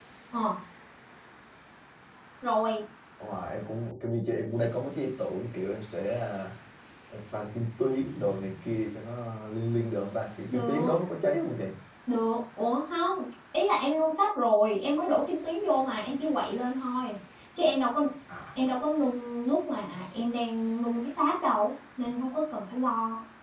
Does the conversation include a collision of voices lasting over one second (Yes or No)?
No